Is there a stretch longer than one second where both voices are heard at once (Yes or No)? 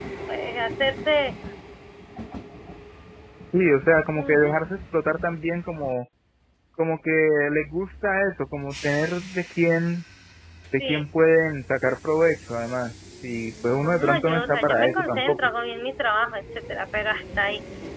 Yes